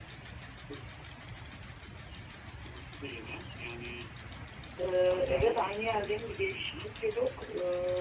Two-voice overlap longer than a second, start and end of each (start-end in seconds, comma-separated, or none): 5.1-6.9